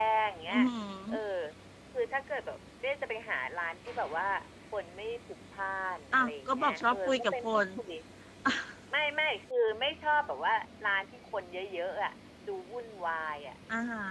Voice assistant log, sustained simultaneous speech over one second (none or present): present